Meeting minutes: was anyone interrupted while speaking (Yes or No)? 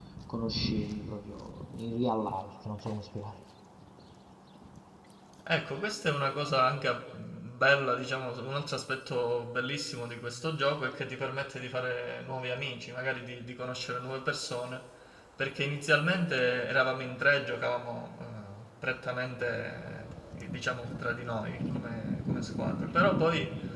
No